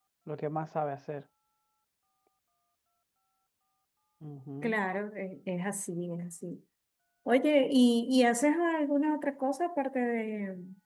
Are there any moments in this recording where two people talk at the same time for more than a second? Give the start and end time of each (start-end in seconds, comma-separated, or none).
none